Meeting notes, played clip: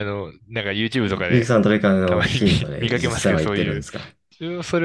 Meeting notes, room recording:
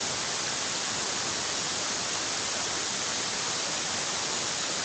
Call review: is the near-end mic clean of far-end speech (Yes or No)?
Yes